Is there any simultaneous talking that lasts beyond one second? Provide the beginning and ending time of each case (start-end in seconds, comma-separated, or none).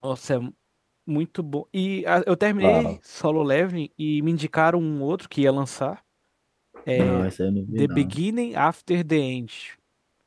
none